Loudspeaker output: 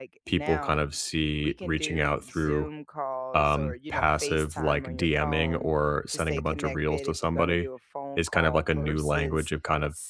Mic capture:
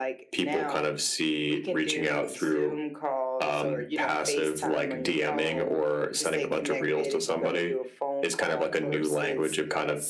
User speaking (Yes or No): No